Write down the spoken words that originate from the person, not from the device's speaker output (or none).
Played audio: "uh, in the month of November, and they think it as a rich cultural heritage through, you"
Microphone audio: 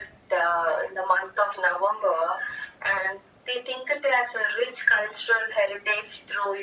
none